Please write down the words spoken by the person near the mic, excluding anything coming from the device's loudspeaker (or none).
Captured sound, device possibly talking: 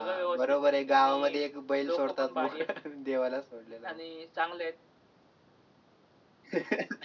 none